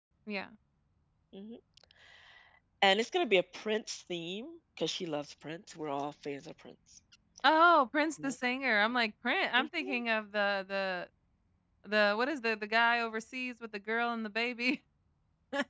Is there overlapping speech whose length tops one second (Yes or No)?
No